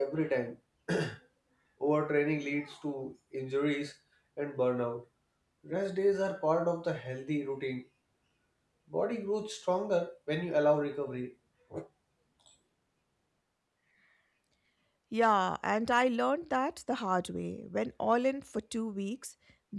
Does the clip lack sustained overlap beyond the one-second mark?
Yes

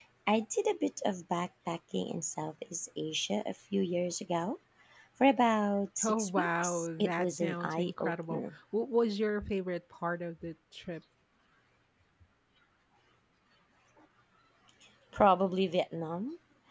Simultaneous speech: Yes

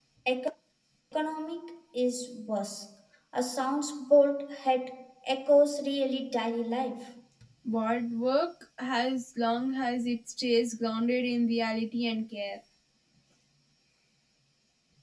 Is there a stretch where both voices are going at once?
No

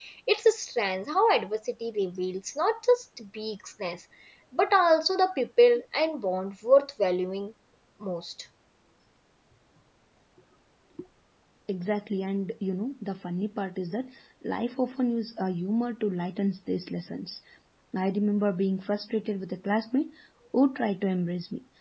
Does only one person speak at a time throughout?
Yes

